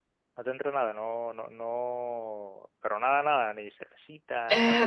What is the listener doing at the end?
taking over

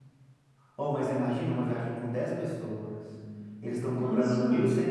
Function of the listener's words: listening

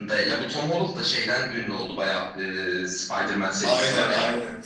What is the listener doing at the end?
taking over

